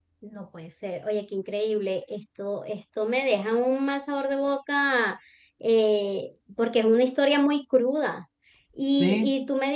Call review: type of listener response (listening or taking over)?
listening